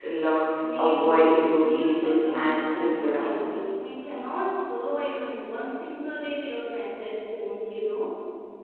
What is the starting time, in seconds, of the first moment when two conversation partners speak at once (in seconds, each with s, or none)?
0.8 s